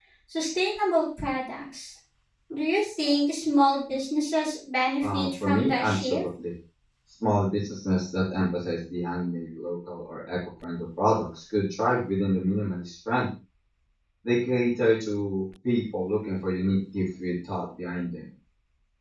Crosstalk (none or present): present